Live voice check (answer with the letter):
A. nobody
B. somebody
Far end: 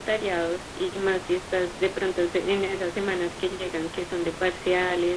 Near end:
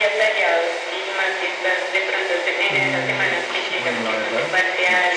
B